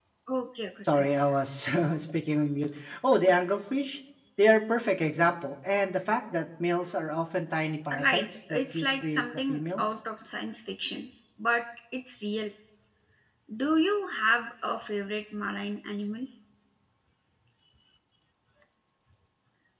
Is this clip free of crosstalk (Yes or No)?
No